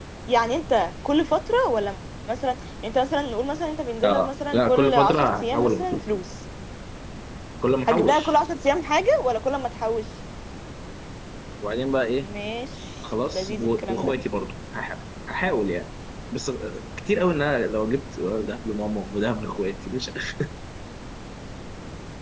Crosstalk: present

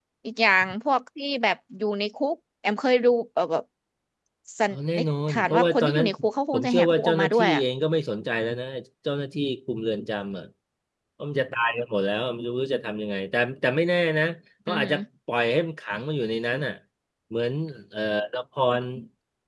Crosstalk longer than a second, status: present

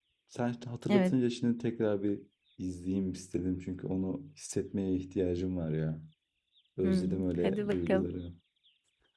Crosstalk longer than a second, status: present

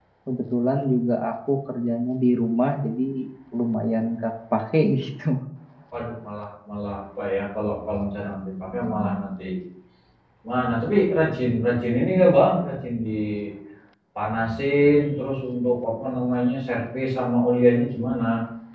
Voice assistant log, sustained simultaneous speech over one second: none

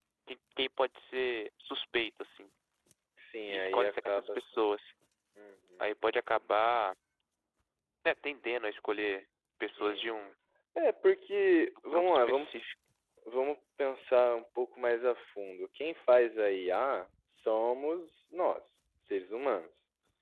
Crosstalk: present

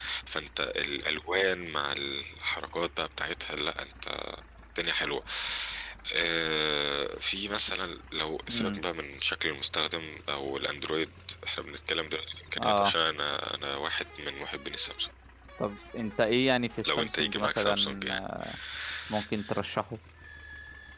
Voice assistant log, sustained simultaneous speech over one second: present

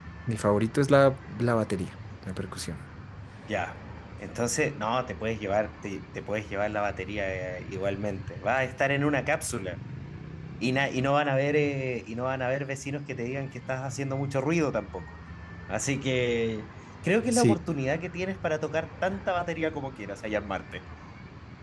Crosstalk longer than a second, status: none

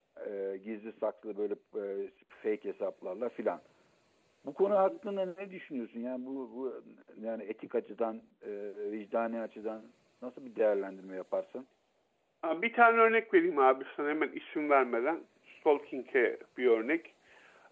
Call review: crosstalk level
none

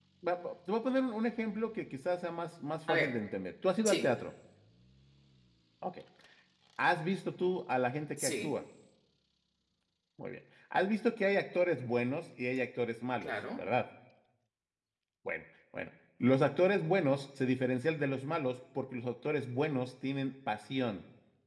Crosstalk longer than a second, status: none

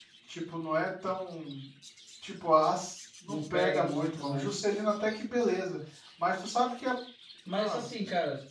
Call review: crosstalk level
present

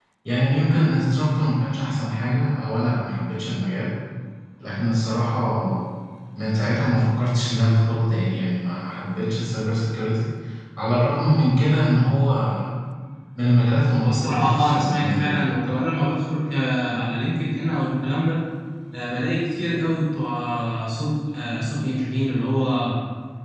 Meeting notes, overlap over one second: present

